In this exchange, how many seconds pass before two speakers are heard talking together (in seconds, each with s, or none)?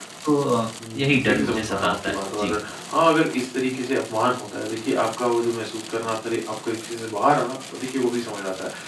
0.9 s